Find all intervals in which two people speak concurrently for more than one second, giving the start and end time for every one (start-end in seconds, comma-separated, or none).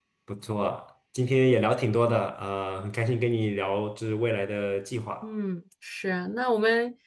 none